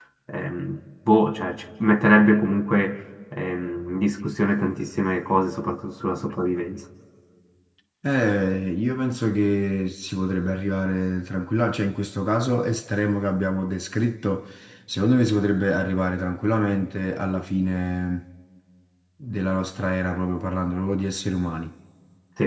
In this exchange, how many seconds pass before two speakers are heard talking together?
none

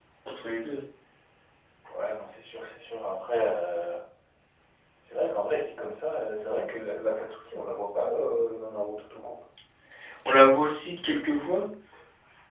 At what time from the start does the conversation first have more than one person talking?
none

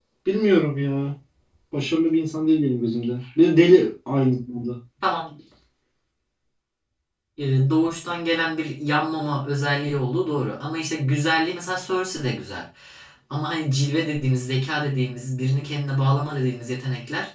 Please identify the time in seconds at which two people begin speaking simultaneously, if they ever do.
none

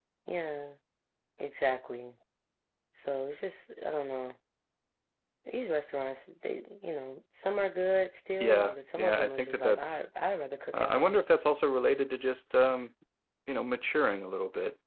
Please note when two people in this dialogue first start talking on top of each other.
8 s

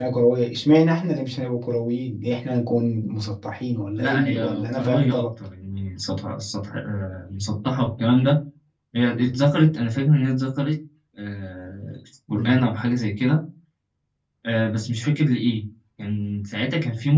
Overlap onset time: 4 s

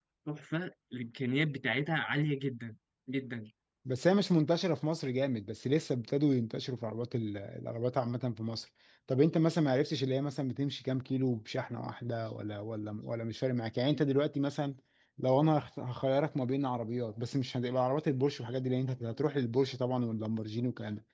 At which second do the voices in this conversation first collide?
none

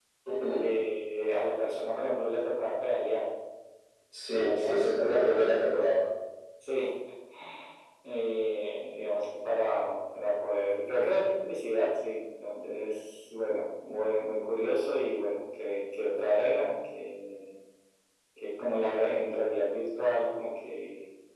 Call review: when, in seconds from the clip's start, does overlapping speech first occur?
4 s

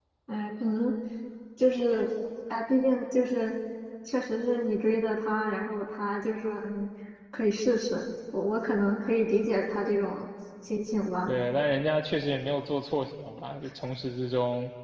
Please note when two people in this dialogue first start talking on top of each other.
none

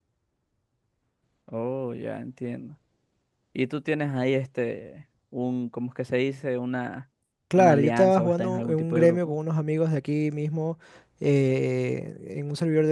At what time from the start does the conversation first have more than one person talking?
8 s

